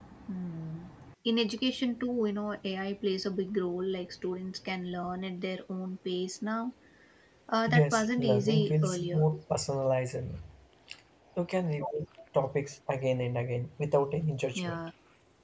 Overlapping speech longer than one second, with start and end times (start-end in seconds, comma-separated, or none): 7.7-9.2